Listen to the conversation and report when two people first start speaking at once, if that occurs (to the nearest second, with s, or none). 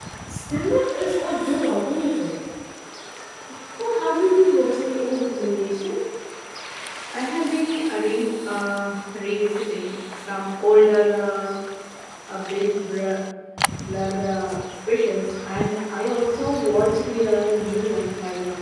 none